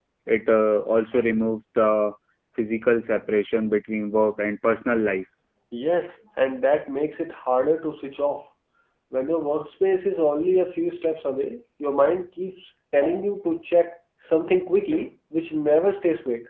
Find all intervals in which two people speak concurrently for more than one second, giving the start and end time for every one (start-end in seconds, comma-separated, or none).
none